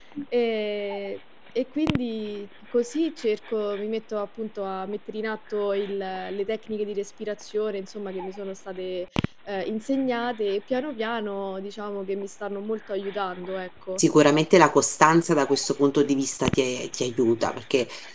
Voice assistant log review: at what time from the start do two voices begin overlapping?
none

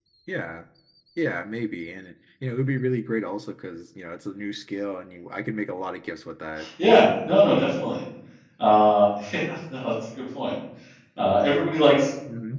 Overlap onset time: none

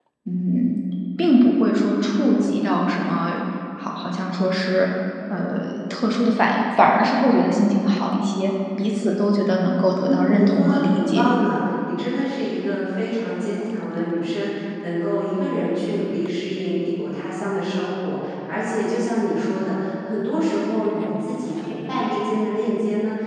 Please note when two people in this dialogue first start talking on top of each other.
10.0 s

